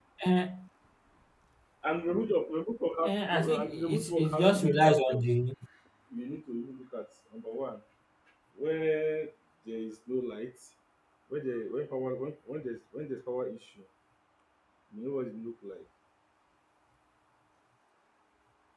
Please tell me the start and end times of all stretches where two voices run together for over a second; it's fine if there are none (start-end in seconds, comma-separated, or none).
3.0-5.3